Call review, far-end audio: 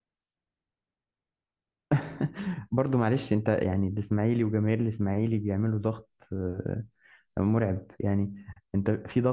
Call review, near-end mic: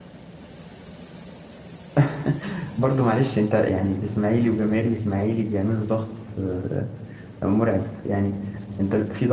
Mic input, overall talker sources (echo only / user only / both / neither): echo only